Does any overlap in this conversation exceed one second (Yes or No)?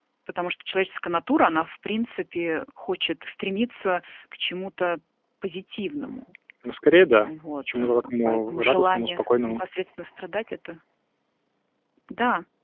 Yes